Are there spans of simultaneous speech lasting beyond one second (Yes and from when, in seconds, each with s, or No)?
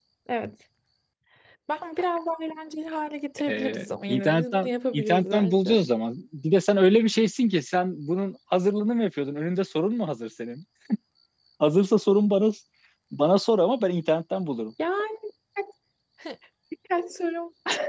Yes, from 3.4 s